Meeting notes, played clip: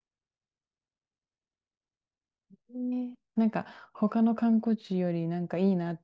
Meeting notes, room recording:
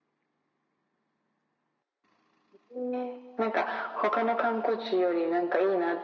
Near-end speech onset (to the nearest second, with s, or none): none